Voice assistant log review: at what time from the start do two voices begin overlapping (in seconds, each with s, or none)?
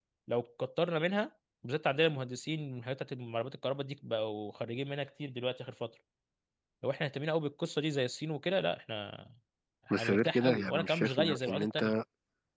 9.9 s